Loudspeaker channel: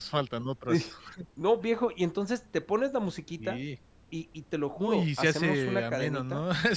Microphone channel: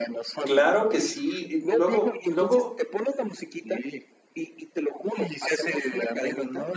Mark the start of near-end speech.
0.4 s

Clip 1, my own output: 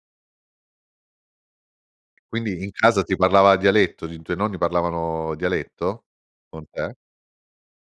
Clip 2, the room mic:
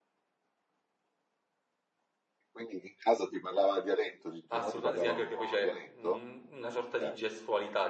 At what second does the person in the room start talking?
4.5 s

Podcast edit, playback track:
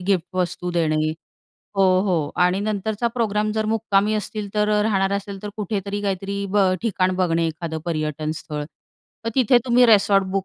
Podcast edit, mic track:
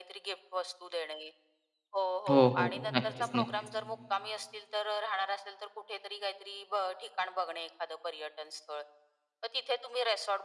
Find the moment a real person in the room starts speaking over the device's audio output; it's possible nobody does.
2.3 s

